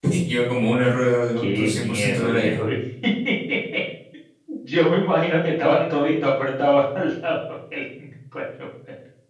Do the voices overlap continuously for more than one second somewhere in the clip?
Yes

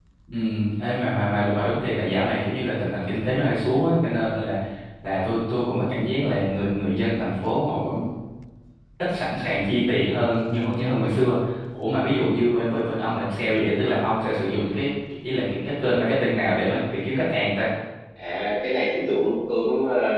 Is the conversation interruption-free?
Yes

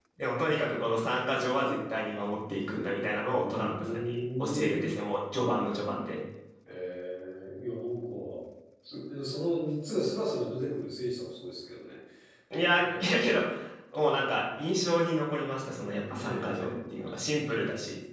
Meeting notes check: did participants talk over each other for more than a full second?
Yes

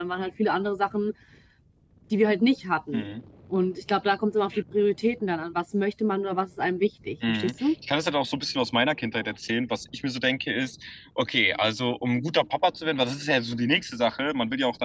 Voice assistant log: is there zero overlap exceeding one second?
Yes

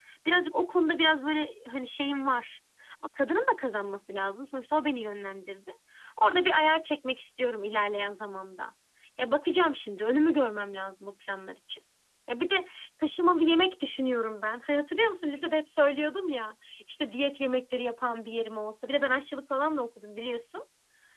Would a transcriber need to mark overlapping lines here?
No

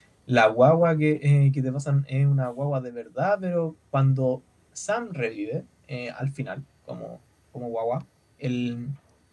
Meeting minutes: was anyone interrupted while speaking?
No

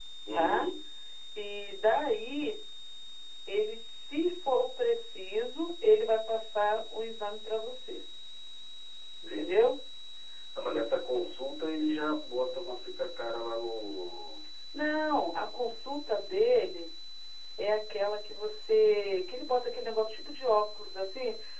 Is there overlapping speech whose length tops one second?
No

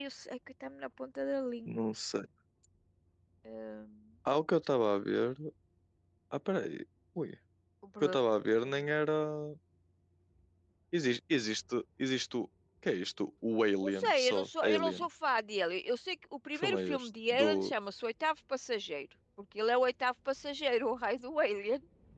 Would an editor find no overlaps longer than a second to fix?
No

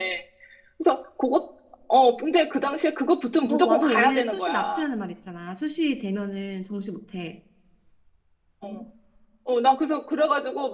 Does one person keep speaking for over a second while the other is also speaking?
Yes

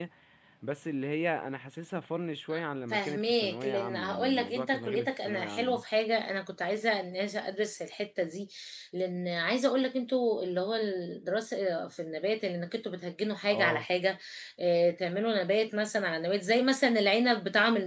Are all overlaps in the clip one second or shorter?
No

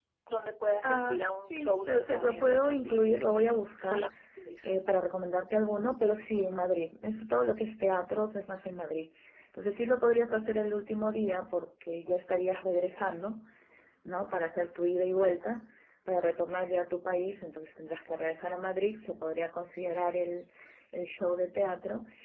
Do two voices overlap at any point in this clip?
Yes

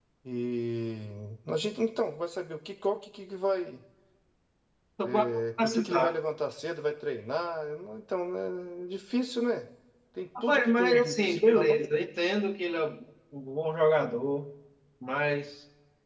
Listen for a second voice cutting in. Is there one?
Yes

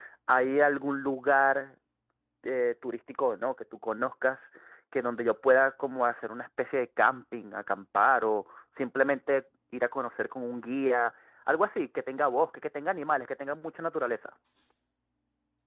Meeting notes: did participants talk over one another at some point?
No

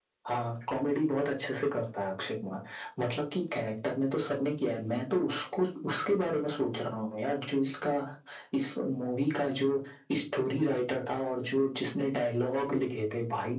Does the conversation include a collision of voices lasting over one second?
No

